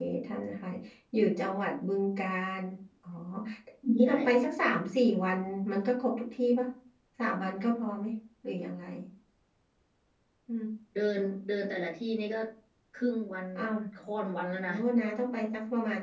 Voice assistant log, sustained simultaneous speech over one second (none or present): none